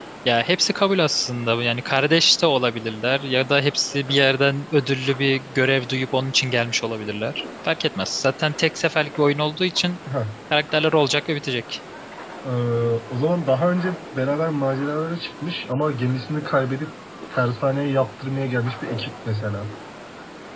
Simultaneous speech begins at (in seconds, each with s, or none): none